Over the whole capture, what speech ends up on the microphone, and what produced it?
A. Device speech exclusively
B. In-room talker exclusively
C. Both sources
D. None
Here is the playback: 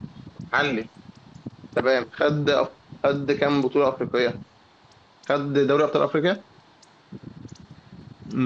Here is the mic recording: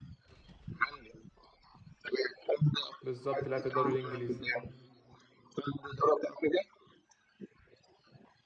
C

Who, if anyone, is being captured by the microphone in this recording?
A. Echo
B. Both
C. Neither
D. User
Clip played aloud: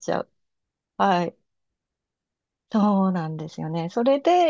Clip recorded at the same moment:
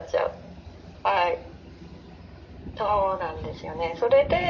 A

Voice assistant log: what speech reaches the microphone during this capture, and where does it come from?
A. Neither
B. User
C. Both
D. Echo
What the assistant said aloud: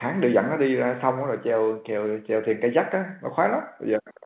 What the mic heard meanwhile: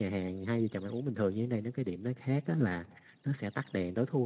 B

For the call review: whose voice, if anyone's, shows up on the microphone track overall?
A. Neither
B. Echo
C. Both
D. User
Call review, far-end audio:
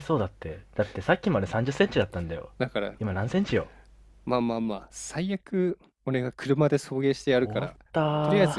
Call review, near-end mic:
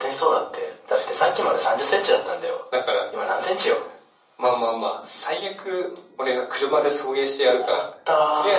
B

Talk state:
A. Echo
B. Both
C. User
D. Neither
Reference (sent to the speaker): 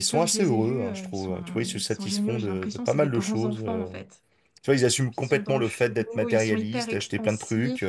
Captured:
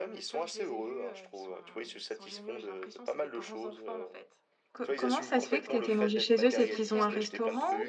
B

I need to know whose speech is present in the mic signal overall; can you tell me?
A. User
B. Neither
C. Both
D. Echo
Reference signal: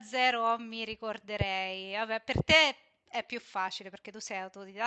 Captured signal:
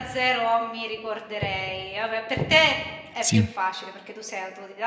C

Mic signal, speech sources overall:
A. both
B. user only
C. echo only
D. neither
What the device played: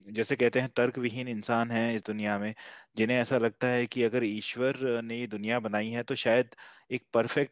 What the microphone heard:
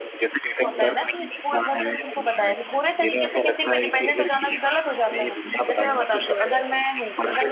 A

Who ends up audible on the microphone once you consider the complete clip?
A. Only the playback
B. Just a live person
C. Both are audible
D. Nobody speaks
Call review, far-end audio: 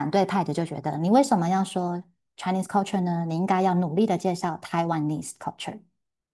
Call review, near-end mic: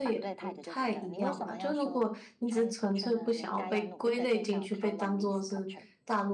C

